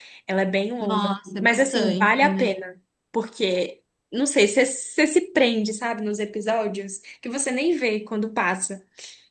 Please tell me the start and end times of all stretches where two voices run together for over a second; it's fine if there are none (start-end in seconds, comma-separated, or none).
0.8-2.6